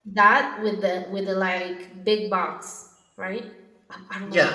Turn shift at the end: Yes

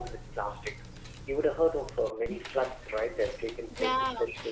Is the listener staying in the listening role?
No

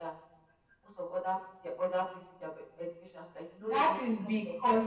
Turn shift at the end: Yes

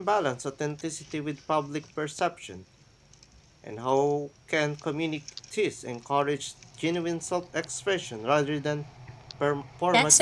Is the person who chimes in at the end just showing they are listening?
No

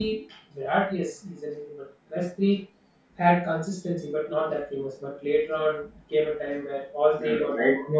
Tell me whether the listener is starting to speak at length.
Yes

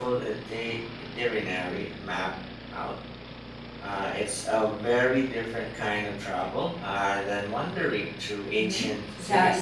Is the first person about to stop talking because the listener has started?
Yes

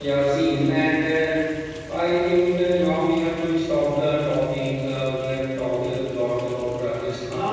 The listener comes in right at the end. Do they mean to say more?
Yes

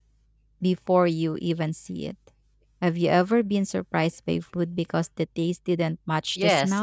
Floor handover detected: Yes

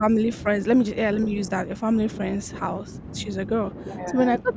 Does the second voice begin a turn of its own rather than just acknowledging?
No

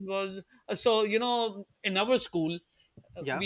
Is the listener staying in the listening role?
Yes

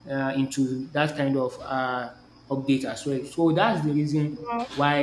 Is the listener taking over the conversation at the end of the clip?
No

